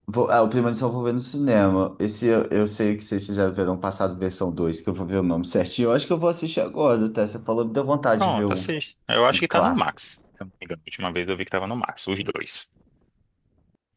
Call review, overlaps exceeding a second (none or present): none